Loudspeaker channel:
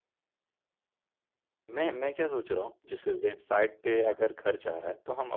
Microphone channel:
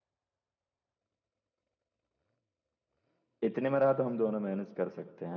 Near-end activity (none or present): present